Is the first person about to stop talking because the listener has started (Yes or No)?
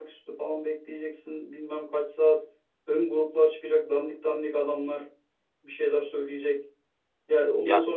No